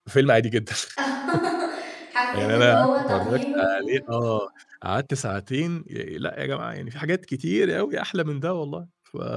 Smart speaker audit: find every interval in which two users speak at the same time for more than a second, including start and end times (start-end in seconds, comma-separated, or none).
2.4-3.7